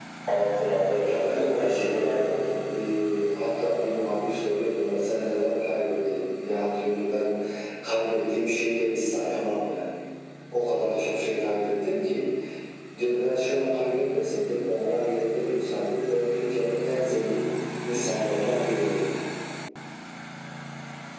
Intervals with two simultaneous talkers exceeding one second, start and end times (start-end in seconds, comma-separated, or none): 1.0-2.3